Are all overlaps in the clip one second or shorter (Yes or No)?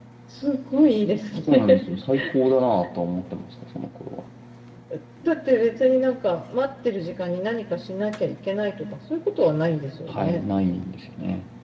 Yes